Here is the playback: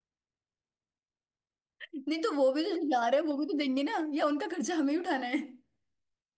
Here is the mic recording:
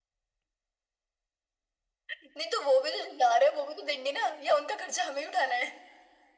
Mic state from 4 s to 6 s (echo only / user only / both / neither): echo only